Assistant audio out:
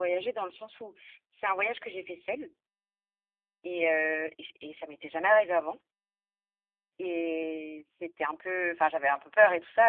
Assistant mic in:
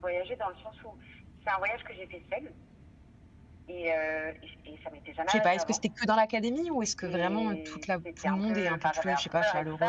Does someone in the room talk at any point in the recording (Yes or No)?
Yes